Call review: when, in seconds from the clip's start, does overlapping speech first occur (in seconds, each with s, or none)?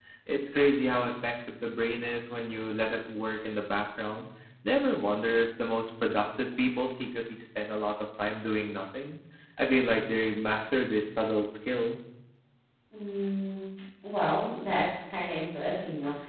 none